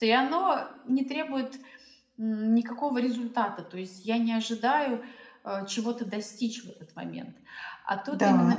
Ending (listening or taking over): listening